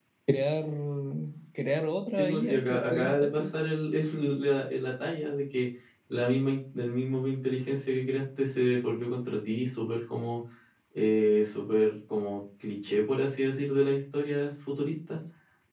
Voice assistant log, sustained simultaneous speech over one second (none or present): present